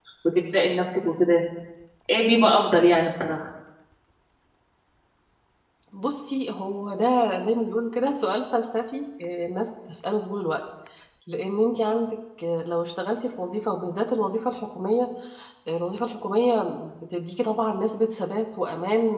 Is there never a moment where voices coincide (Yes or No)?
Yes